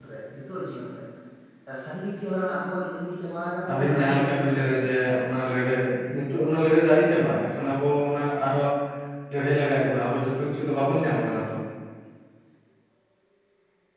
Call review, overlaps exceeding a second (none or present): present